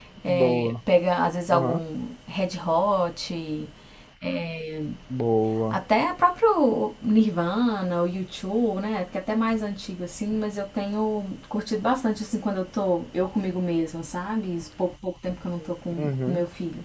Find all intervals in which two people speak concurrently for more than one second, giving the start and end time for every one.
none

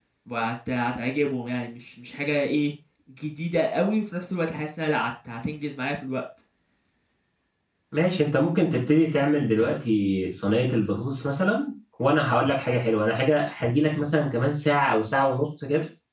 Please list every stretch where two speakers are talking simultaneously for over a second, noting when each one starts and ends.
none

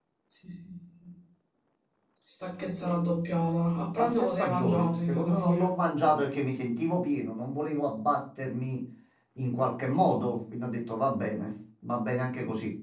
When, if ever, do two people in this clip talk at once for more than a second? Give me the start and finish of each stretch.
4.0-5.8

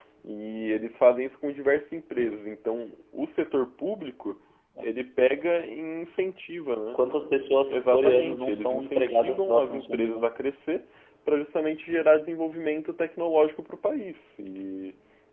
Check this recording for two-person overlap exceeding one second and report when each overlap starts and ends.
7.7-10.2

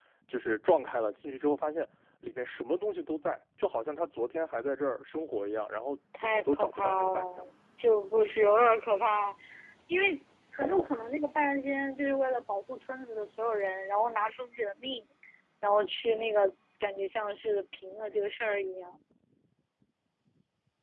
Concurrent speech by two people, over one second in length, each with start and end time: 6.2-7.4

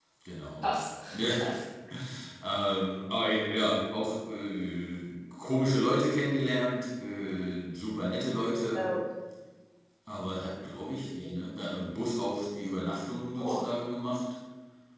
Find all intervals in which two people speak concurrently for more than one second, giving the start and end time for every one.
none

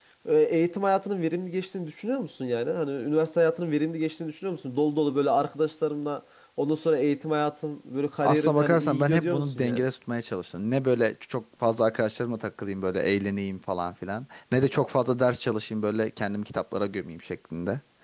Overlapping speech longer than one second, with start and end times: 8.2-9.8

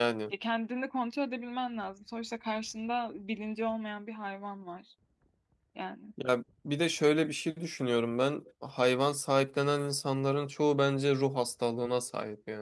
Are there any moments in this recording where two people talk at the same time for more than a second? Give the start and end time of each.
none

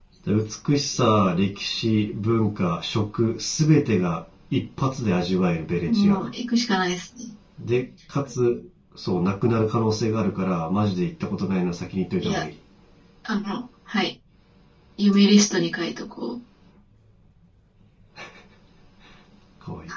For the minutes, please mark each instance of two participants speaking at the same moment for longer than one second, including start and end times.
none

